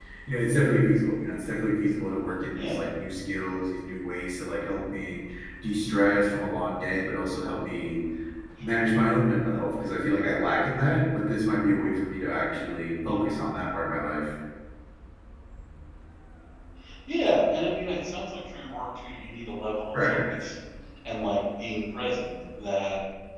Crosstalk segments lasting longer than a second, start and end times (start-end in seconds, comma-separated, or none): none